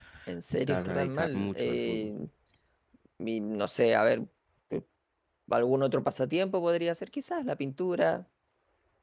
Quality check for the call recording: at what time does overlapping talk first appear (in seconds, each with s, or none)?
0.7 s